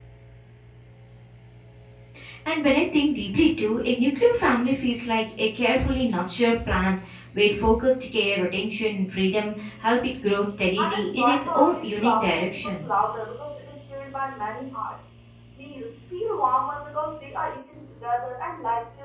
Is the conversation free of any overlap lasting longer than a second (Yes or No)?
No